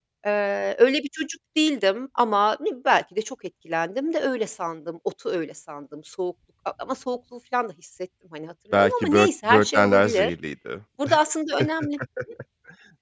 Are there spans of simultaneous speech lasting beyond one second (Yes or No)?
Yes